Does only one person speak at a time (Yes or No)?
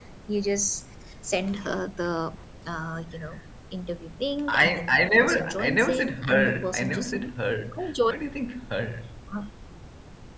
No